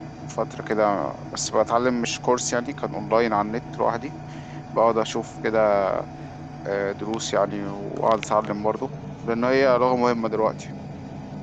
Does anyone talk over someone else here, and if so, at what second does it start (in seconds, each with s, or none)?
none